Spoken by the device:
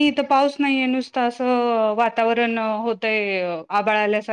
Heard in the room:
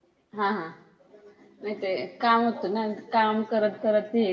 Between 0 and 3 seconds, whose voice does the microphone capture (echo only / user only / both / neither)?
user only